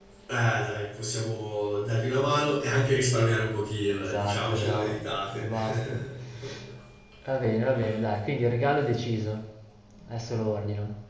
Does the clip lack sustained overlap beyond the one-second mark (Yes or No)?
No